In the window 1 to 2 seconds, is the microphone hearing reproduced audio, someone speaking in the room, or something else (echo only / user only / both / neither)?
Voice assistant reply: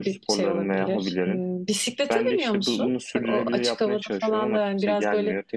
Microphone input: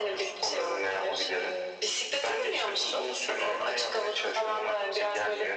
echo only